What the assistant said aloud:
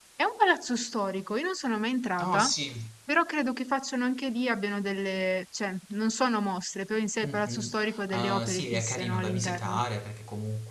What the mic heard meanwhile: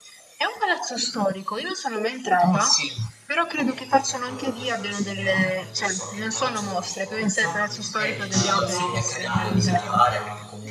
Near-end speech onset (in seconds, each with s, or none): 3.5 s